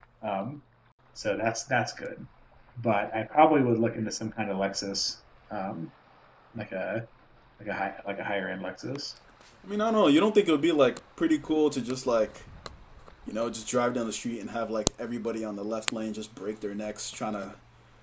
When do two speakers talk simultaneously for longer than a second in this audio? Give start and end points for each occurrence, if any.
none

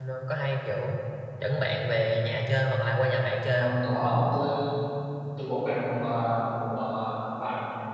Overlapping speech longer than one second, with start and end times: none

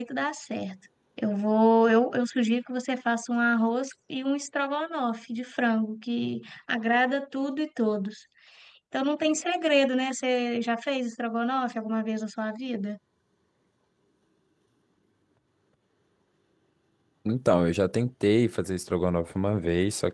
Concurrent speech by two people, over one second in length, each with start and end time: none

